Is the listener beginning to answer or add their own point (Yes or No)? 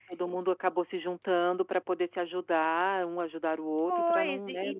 Yes